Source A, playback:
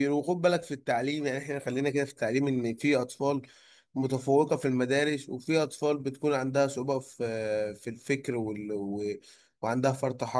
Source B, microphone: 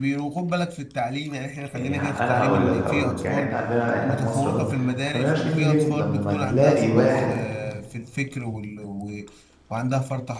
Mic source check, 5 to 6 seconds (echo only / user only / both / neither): both